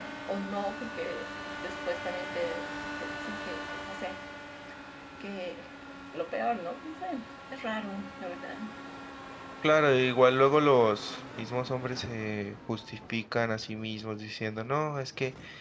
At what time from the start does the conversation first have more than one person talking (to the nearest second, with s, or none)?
none